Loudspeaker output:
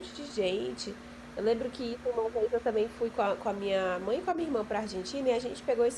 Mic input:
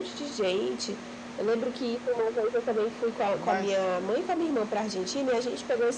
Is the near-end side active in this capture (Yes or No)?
Yes